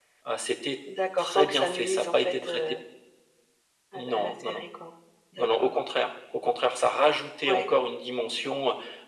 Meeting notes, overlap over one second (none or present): present